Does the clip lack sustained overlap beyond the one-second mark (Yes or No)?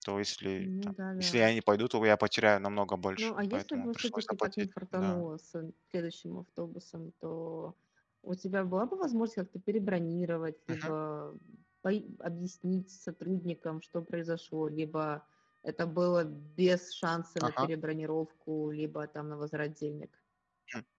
No